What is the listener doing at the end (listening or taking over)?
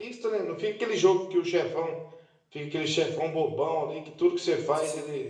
listening